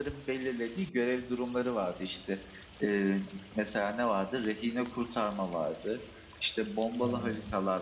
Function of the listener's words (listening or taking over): listening